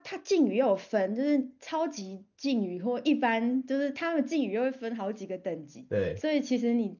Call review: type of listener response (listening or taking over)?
listening